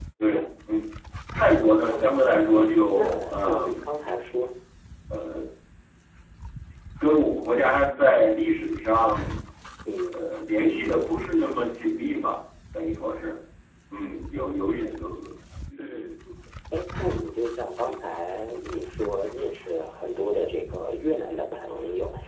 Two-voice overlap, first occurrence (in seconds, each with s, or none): 1.9 s